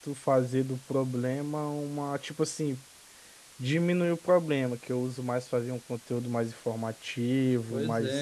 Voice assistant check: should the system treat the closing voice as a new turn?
Yes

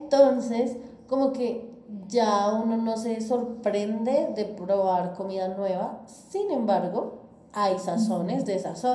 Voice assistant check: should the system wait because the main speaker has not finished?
Yes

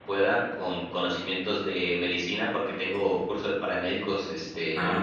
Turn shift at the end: No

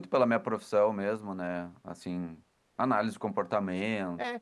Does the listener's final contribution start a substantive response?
Yes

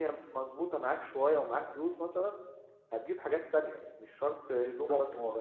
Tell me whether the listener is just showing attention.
No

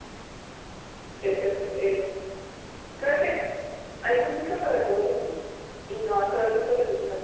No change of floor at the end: Yes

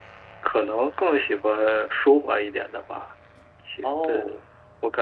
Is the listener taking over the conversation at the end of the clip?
No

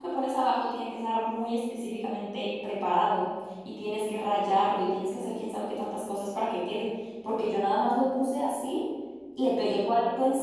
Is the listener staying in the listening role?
Yes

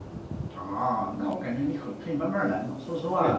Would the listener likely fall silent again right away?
No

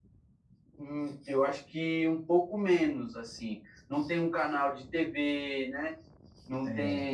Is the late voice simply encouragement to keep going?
Yes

